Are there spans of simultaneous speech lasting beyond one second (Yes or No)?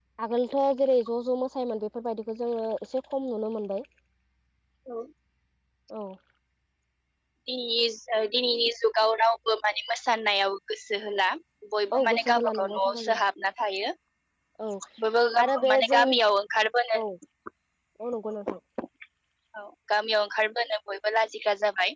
Yes